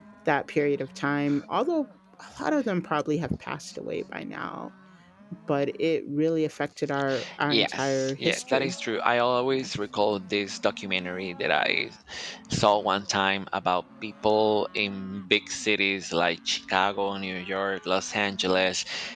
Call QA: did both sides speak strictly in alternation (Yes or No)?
No